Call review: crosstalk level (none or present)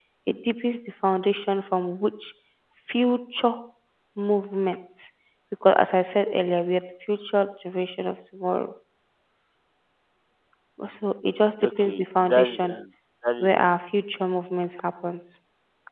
present